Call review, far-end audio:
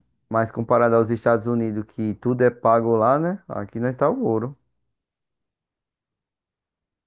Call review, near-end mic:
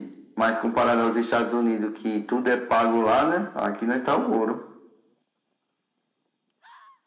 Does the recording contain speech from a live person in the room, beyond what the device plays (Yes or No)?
No